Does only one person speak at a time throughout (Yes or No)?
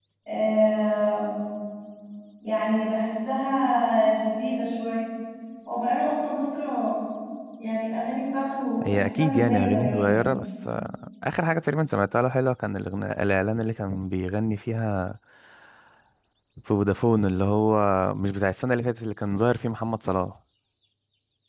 No